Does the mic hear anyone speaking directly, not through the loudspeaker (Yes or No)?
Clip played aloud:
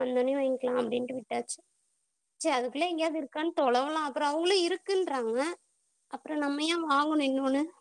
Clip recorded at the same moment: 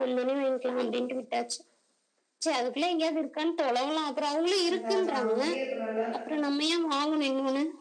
Yes